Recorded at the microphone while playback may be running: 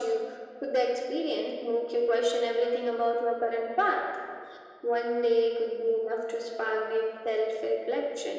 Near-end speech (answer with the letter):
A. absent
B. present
A